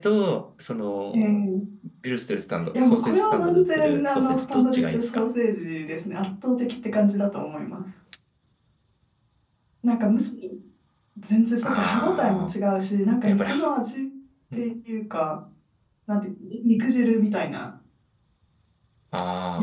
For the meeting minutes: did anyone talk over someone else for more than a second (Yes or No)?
Yes